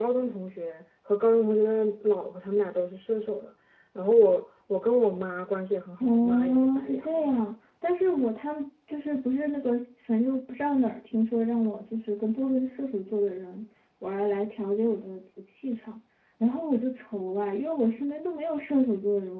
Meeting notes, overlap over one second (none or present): present